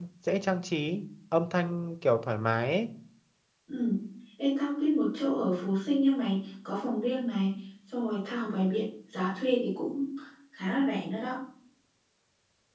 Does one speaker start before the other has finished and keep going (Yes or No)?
No